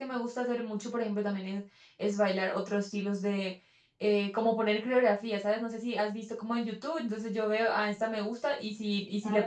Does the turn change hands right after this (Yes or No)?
No